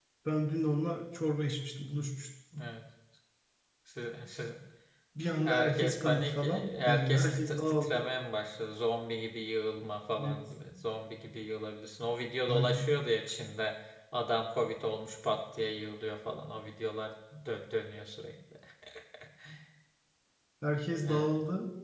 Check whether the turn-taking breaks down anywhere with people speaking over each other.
Yes, from 5.4 s

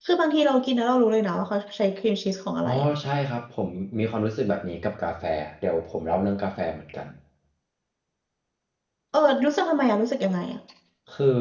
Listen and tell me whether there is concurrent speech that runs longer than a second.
No

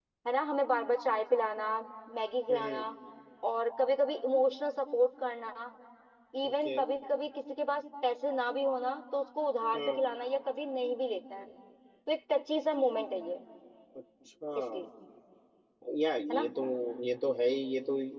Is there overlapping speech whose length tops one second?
No

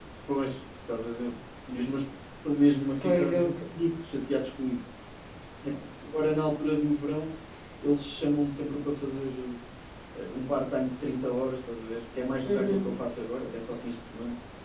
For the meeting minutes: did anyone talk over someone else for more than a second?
No

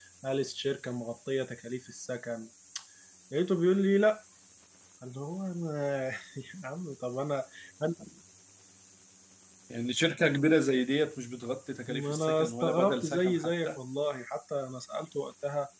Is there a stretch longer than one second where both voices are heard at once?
Yes, from 11.9 s

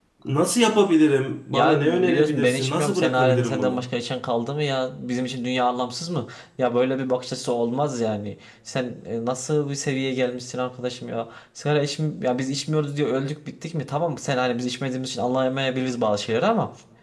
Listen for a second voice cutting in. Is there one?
Yes, from 1.5 s

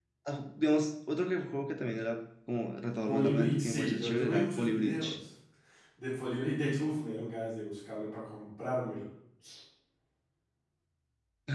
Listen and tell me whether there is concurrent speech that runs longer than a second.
Yes, from 3.1 s

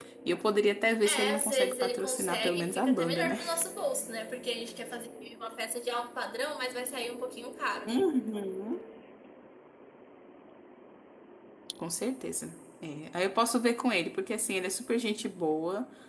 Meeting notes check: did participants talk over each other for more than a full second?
Yes, from 1.0 s

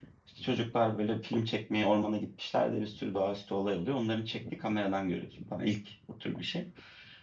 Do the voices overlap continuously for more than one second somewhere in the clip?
No

